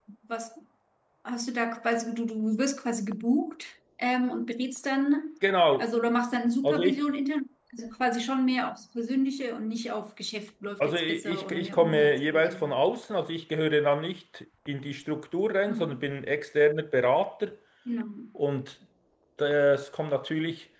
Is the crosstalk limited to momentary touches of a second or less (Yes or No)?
No